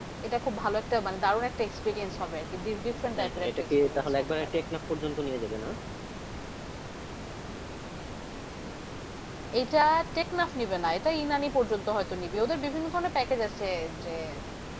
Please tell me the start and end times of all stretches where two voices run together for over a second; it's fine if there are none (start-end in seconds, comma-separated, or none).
3.2-4.6